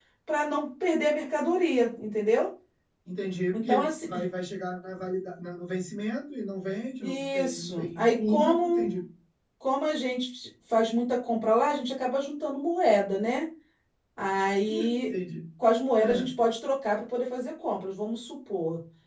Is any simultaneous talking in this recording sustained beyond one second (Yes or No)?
Yes